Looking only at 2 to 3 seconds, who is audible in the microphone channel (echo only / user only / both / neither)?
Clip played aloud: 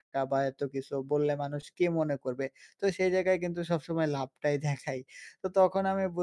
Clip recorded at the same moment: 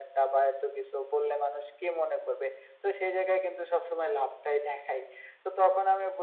echo only